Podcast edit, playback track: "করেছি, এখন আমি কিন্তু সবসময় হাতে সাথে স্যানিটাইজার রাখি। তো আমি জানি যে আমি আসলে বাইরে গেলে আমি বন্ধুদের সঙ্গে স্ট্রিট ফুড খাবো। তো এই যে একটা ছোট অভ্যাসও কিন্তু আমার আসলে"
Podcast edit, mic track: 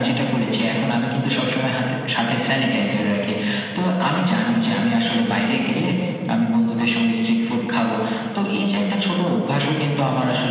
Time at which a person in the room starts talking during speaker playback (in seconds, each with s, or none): none